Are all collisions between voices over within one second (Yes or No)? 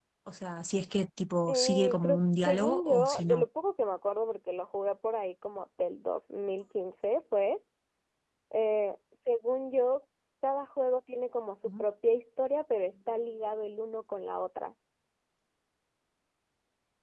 No